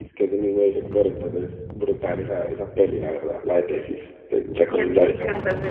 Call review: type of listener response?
taking over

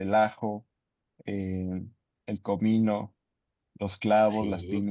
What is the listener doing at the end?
taking over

